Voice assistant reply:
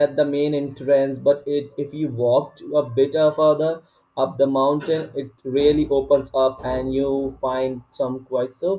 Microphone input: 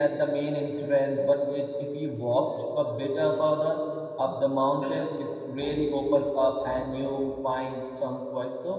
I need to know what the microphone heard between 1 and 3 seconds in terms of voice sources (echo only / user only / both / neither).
echo only